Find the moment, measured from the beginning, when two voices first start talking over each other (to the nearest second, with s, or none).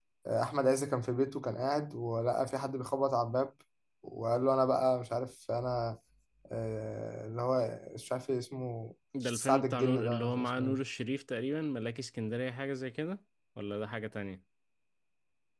9 s